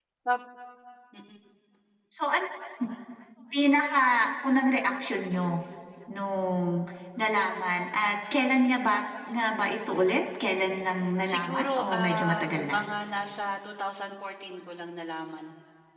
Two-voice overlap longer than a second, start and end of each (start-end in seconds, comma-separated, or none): 11.3-12.8